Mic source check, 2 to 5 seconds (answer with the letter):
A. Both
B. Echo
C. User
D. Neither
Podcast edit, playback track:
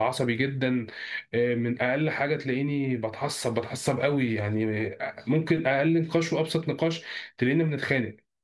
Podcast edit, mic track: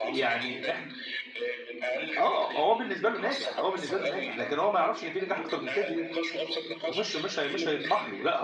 A